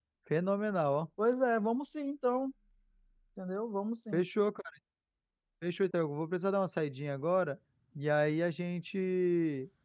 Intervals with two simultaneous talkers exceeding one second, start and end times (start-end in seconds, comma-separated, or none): none